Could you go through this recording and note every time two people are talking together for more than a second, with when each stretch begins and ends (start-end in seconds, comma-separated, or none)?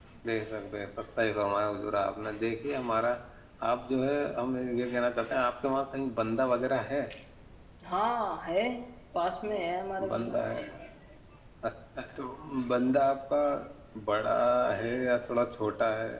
none